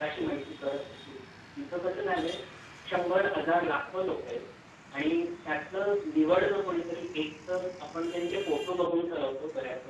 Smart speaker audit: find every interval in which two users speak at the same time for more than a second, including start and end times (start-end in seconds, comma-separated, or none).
none